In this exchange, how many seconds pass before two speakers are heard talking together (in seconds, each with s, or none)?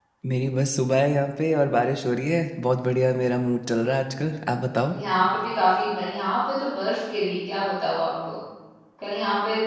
none